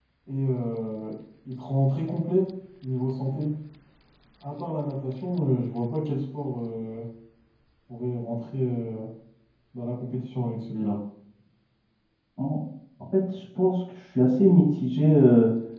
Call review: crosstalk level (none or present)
none